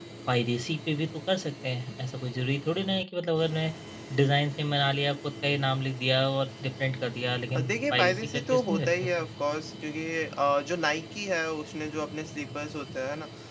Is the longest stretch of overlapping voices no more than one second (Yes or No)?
No